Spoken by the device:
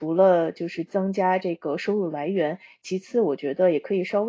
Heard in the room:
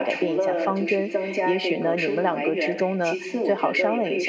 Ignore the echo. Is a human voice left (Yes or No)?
Yes